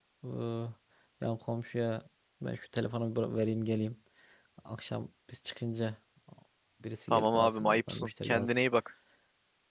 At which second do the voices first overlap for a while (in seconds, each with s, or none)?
7.1 s